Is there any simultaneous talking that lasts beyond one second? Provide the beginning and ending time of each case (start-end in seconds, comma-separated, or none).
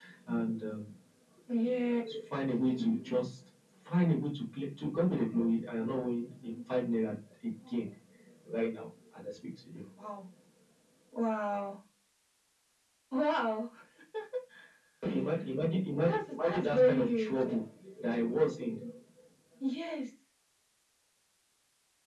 16.0-17.4